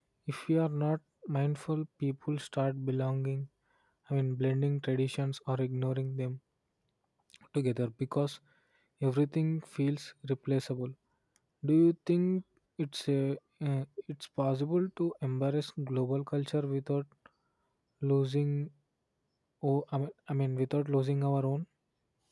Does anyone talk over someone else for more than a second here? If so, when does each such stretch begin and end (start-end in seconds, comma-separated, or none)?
none